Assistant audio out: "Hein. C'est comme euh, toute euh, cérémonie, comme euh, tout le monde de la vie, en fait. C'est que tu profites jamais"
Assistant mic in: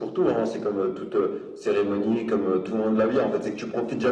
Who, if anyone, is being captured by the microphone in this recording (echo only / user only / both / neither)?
echo only